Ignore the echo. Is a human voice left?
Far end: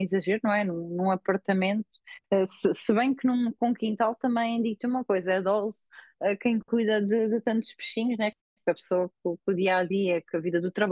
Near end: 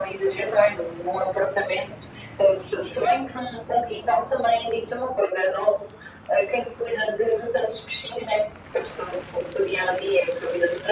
No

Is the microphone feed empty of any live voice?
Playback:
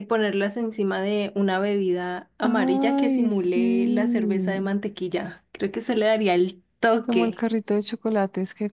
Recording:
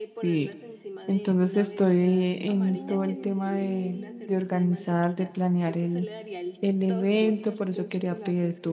No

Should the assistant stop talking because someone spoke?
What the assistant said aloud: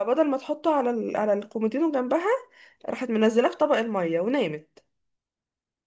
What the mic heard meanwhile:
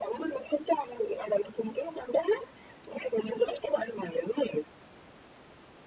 No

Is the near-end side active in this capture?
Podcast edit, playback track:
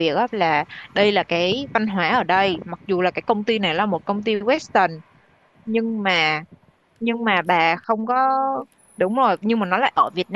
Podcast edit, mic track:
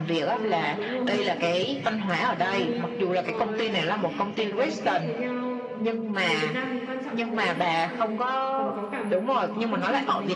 Yes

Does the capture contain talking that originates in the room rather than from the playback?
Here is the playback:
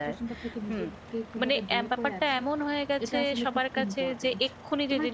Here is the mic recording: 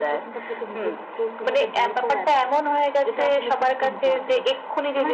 No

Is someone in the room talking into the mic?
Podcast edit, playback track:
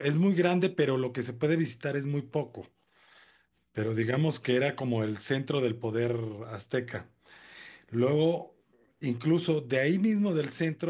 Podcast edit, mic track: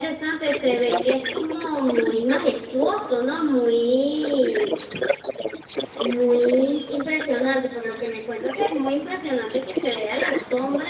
Yes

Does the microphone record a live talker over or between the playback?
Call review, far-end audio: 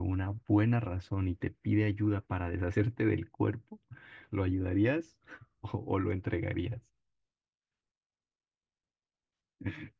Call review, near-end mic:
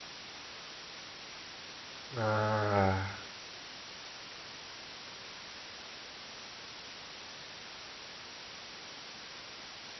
Yes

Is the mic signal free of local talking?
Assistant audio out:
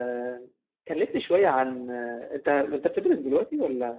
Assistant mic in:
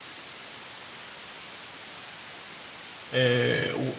No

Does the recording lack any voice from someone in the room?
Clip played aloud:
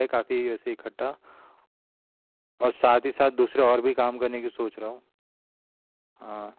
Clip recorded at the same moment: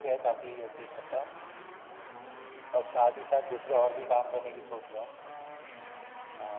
Yes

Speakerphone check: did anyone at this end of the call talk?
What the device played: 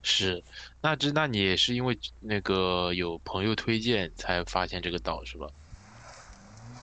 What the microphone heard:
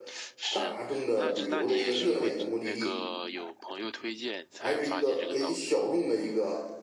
Yes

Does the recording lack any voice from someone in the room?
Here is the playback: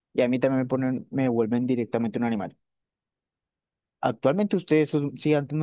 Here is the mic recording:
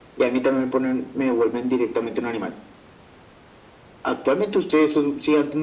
Yes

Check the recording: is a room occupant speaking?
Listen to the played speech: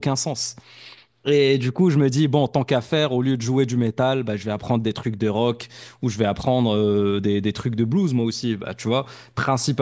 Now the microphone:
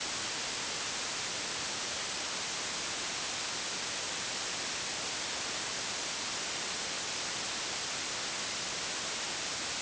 No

